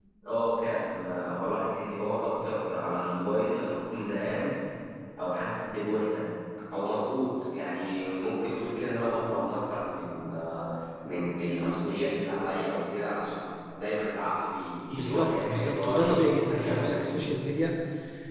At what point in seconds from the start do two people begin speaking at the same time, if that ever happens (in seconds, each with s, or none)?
14.9 s